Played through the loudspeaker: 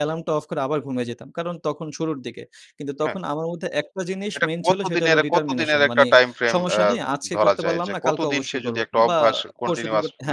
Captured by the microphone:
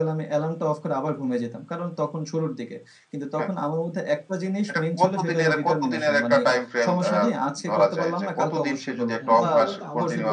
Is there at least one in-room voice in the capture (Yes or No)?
Yes